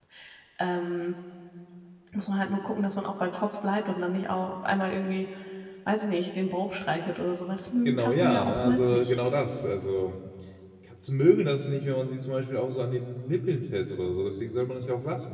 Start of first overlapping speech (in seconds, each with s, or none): 7.8 s